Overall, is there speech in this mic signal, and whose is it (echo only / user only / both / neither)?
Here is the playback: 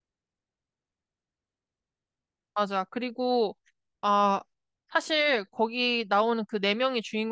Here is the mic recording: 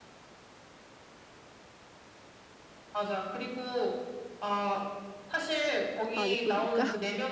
both